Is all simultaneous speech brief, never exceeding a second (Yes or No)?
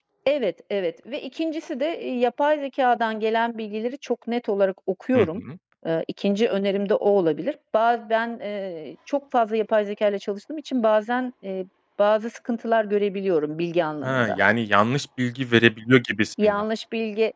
Yes